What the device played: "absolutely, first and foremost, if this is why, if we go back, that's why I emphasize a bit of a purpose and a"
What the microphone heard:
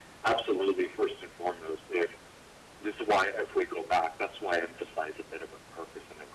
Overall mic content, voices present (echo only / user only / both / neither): echo only